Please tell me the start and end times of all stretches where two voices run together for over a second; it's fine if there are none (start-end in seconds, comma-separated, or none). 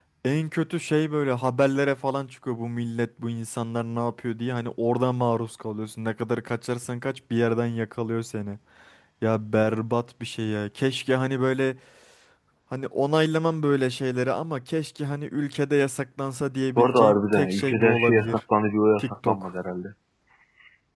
16.8-18.4